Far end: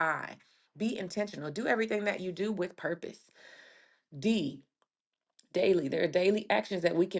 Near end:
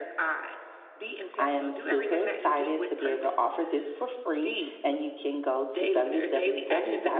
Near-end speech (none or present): present